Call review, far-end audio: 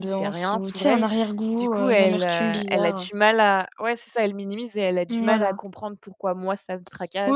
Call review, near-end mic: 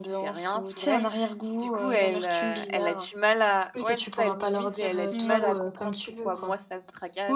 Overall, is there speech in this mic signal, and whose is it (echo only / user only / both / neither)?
both